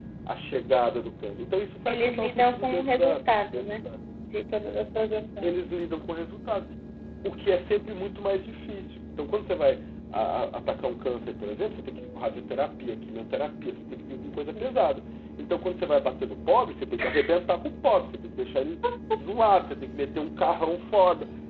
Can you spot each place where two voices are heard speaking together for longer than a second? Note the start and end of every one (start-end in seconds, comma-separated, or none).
1.9-3.7